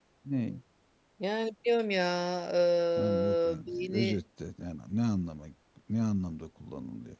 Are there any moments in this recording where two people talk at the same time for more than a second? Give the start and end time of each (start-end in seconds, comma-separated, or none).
3.0-4.2